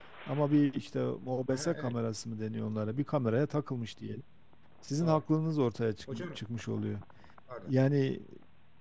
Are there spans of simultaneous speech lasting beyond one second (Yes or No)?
No